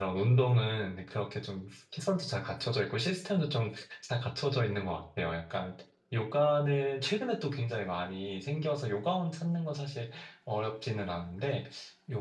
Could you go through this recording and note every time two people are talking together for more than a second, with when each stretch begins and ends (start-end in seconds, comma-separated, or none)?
none